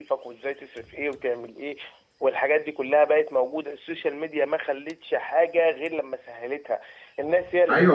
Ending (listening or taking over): taking over